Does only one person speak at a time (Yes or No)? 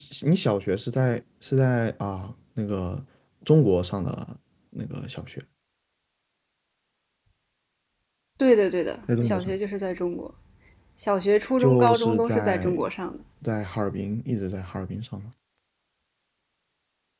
No